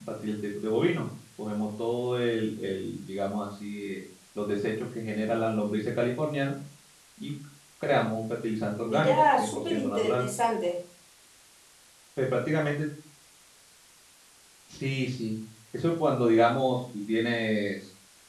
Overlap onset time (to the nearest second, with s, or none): 9 s